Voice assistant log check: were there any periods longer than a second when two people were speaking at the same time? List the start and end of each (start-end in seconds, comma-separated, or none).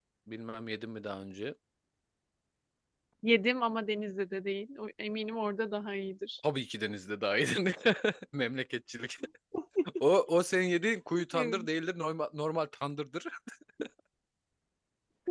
none